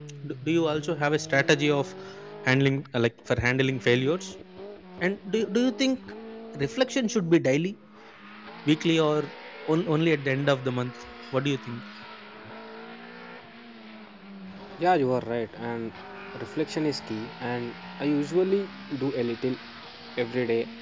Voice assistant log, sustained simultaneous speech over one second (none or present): none